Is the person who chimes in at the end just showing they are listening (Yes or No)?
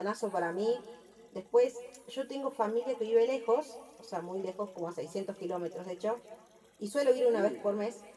Yes